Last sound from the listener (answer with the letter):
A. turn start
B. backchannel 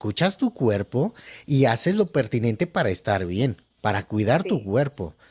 B